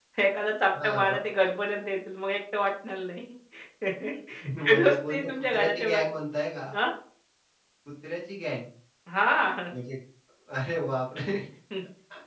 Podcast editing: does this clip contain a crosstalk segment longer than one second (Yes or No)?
Yes